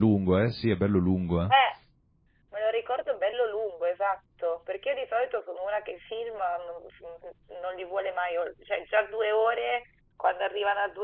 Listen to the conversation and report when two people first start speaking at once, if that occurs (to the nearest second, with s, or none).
none